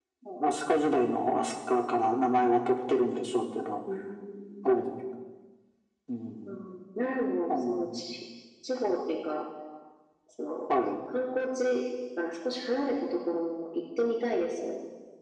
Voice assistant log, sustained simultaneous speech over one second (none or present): none